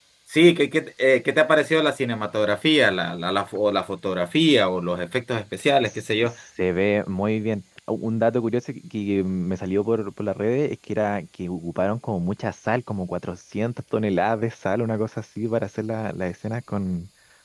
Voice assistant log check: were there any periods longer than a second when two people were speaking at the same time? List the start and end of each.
none

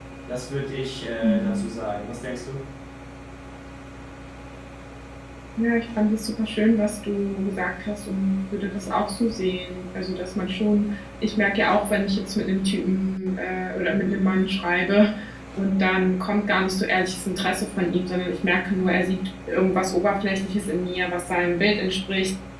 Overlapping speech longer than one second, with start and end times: none

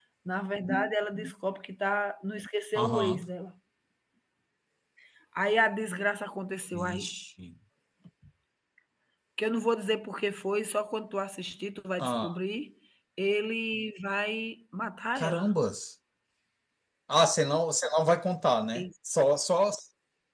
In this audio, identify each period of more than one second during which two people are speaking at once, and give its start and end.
none

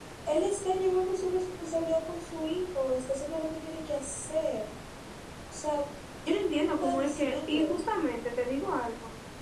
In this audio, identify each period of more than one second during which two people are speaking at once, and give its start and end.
6.2-7.8

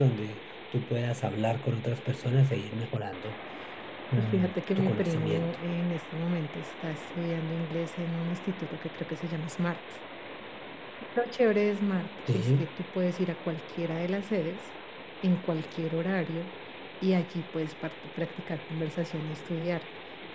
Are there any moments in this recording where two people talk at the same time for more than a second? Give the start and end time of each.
4.2-5.5

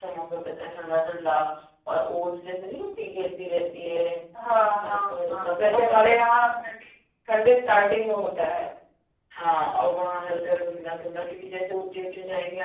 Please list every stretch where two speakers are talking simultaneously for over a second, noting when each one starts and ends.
4.8-6.5

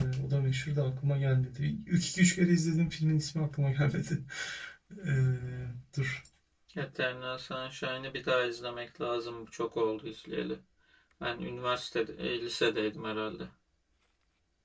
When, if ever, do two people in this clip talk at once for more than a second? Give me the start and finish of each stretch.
none

